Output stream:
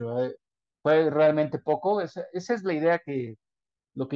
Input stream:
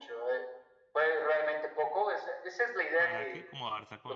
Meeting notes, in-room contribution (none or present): present